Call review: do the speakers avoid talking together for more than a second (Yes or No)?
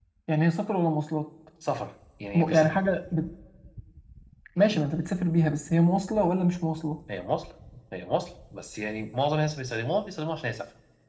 Yes